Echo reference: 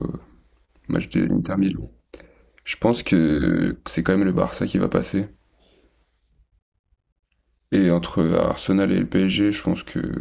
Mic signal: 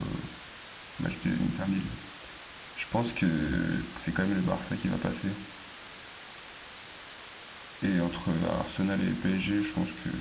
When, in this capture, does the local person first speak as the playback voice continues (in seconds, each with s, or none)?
none